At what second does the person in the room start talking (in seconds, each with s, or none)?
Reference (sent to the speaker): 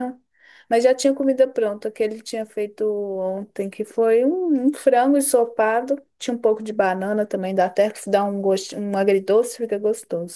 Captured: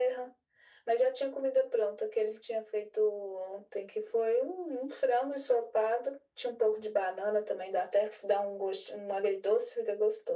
none